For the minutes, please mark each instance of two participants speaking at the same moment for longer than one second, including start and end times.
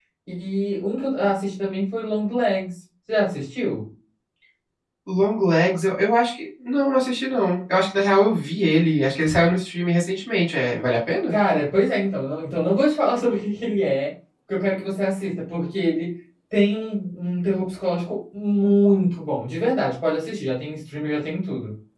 none

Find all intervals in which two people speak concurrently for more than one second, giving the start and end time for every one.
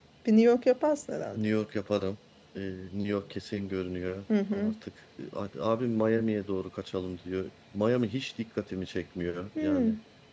none

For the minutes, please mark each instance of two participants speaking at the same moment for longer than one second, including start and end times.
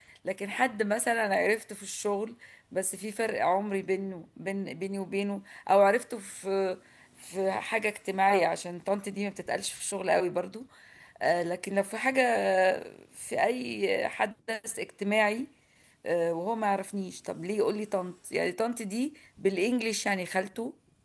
none

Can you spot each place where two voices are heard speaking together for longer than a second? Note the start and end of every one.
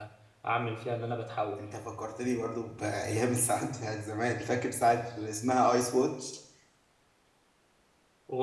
none

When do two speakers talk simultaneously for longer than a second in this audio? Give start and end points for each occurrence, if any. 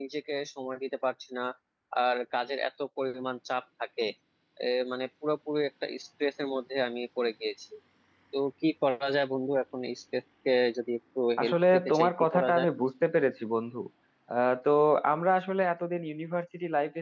11.4-12.7

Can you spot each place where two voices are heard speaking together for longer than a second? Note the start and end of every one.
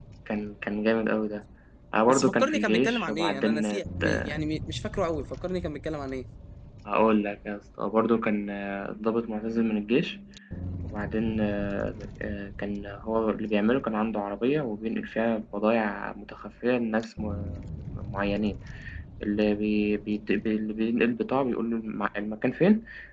2.1-3.6

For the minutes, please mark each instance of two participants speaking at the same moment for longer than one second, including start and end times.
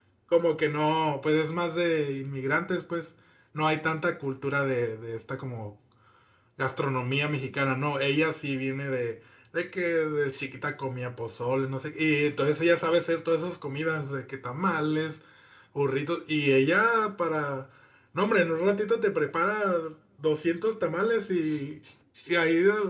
none

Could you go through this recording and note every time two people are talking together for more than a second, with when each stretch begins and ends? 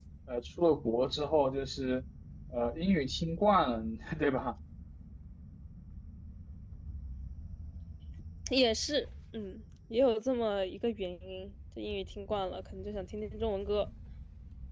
none

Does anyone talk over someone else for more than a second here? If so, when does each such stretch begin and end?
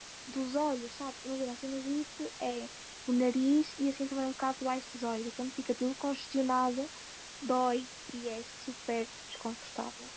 none

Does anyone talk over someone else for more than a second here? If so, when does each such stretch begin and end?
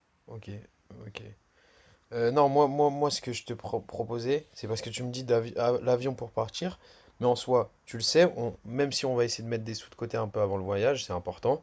none

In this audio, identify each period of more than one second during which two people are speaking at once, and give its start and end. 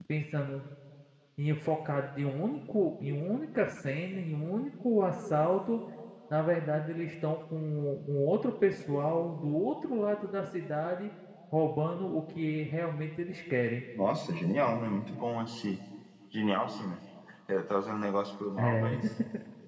none

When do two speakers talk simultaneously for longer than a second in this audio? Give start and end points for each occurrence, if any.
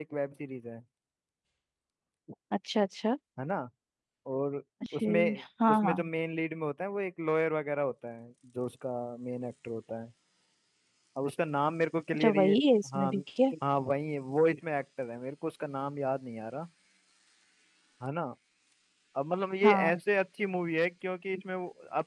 none

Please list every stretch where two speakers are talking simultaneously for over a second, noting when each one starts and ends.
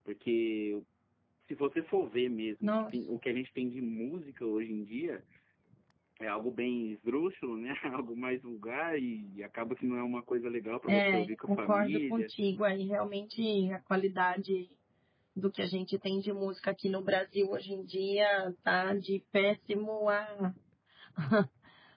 10.9-12.3

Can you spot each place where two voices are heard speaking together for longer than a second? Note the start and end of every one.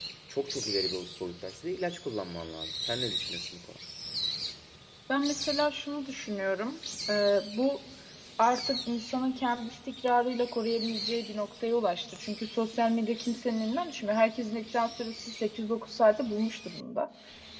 none

